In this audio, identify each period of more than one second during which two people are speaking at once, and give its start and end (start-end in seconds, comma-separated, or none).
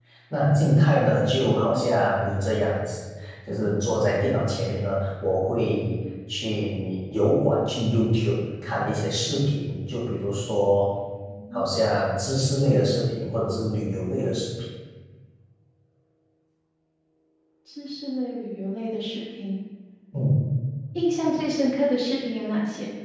none